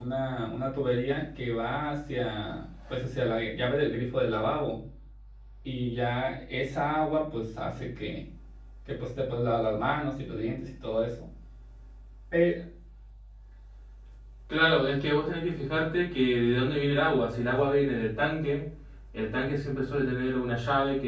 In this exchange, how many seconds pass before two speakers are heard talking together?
none

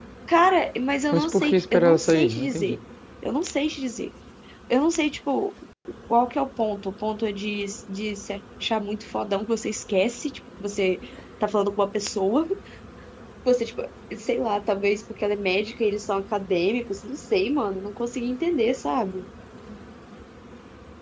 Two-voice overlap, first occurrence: 1.1 s

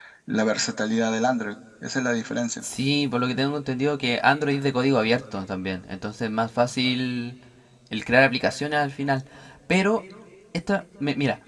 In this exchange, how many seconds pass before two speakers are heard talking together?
none

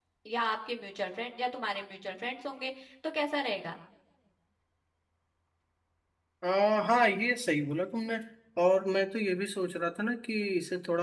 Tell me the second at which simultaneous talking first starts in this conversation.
none

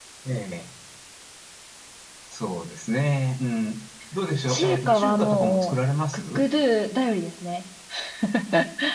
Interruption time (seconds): 4.5 s

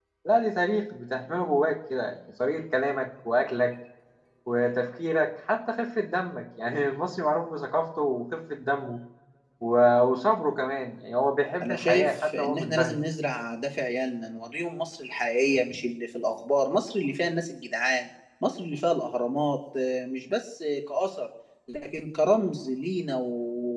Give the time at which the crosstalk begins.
11.6 s

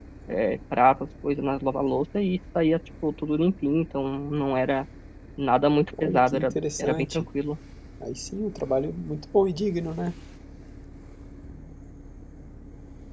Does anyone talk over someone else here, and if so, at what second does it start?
6.0 s

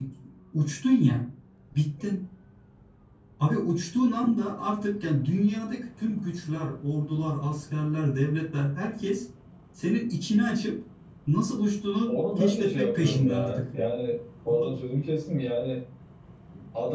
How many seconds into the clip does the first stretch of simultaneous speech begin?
12.1 s

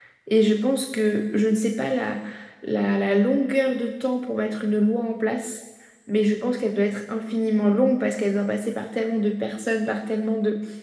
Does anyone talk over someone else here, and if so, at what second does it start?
none

